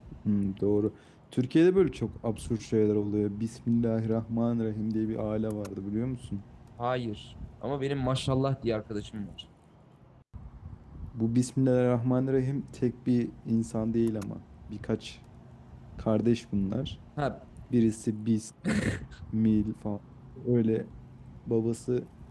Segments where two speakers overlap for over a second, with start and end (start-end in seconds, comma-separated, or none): none